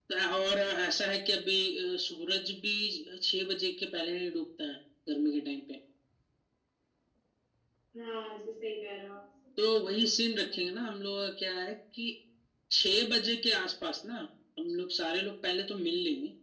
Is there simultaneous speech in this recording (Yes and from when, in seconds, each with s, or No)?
No